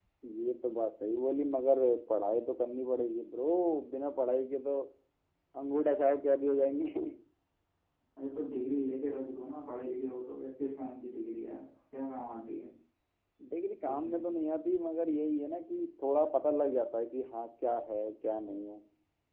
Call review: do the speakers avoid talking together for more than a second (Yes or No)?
Yes